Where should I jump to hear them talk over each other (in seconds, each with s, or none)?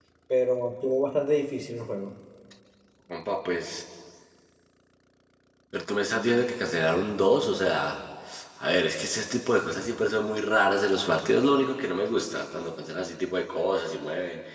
none